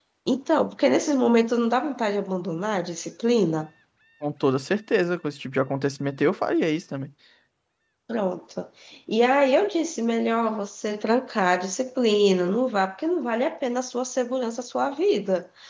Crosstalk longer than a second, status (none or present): none